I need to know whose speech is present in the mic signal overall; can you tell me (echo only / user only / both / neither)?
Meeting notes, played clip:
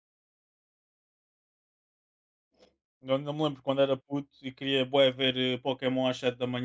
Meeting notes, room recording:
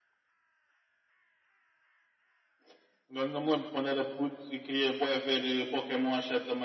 echo only